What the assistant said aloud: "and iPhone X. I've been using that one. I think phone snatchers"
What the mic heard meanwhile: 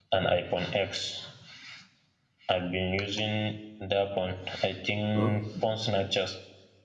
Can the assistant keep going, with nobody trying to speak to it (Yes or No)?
No